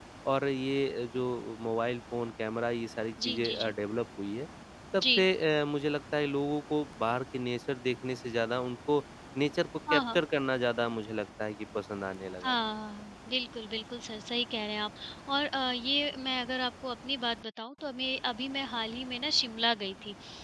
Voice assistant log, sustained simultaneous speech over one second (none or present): none